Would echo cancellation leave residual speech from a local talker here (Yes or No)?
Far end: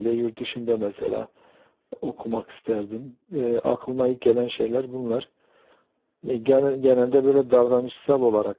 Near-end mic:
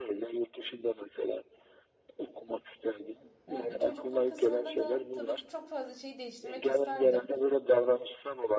Yes